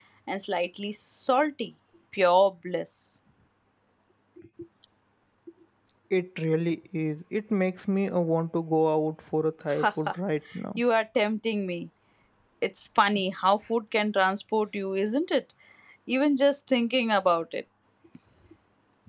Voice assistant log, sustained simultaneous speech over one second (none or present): none